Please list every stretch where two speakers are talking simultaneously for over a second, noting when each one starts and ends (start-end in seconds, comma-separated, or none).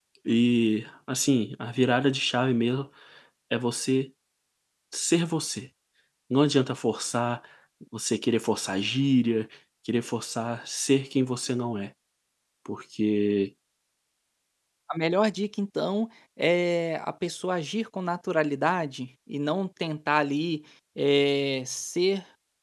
none